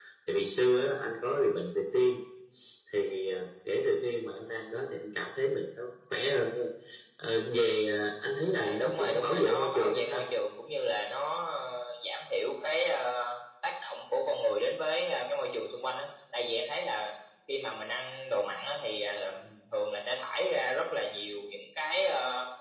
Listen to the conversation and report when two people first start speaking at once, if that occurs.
8.5 s

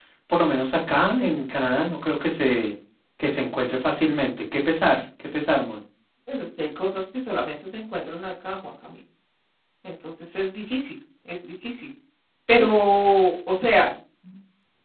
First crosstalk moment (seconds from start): none

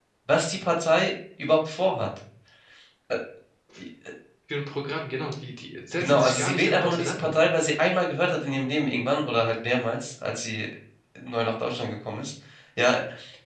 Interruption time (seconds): 5.9 s

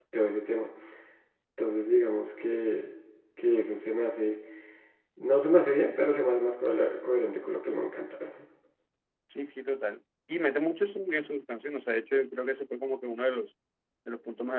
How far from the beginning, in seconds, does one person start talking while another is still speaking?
none

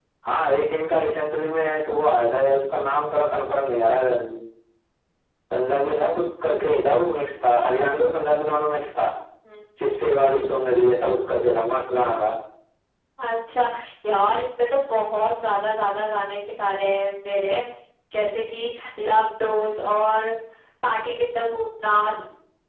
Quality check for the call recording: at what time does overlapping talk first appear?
none

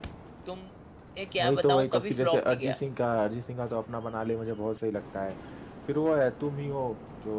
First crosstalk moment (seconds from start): 1.4 s

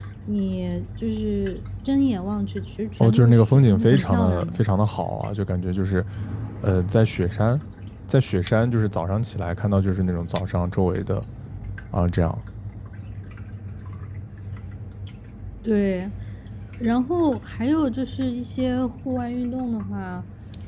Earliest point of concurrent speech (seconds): 3.0 s

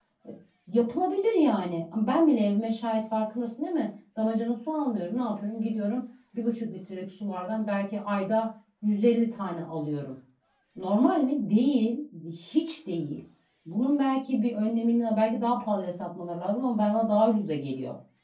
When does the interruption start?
none

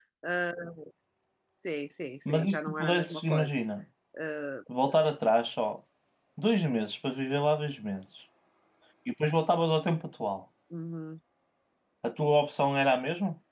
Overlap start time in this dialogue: 2.2 s

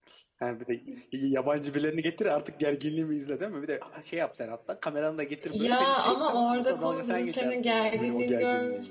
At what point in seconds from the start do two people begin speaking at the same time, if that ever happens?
5.4 s

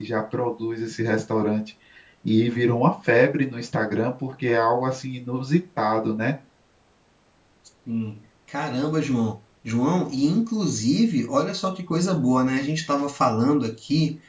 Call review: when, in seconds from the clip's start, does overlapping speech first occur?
none

